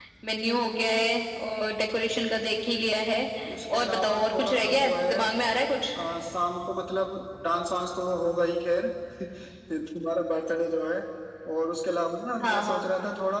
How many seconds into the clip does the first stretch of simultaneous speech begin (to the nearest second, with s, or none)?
4 s